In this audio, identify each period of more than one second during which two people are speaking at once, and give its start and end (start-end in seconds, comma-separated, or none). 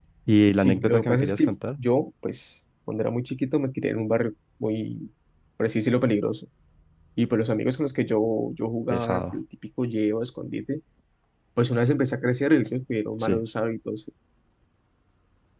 0.5-1.8